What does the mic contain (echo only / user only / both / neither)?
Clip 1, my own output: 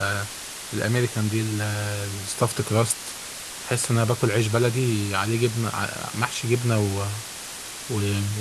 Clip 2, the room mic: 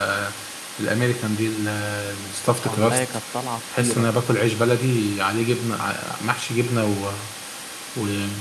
both